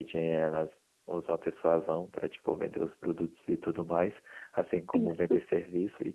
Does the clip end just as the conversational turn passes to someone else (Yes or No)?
No